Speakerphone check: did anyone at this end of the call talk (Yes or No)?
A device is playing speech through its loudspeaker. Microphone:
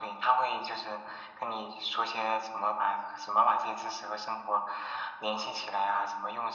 No